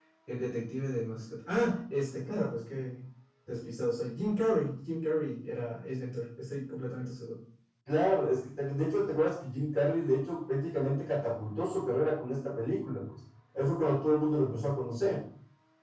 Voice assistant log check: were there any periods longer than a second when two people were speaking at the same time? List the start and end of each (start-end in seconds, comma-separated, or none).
none